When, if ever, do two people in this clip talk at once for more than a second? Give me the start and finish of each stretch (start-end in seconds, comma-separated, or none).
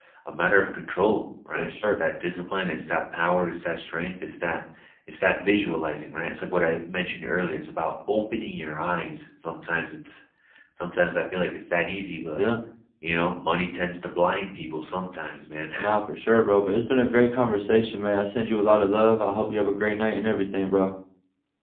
none